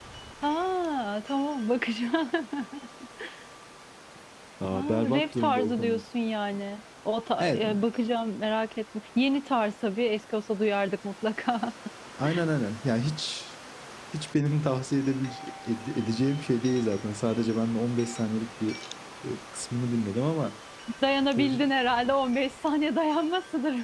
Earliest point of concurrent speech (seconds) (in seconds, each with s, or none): 4.7 s